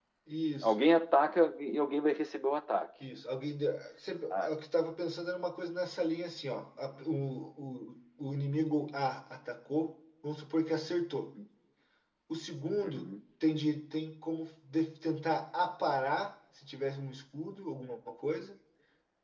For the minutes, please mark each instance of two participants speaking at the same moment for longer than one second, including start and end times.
none

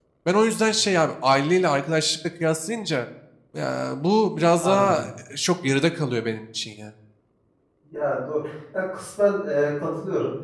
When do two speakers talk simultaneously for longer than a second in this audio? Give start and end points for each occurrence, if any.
none

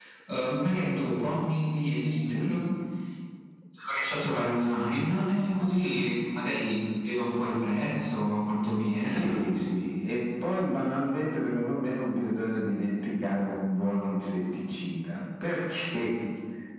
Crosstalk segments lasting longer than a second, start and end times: none

